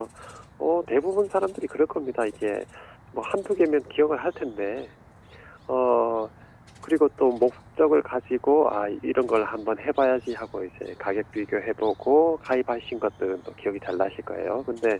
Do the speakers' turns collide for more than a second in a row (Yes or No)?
No